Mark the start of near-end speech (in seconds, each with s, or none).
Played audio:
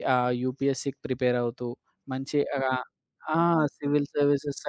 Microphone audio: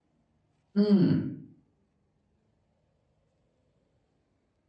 0.8 s